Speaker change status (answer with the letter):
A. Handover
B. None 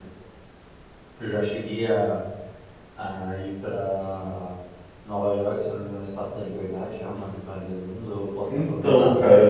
A